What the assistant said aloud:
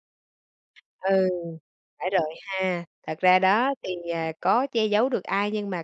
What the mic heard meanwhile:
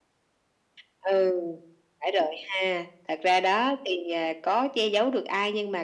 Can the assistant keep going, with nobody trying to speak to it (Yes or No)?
Yes